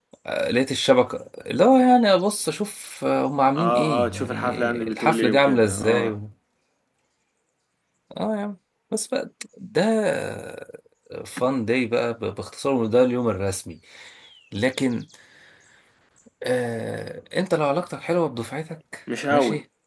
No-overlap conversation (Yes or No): No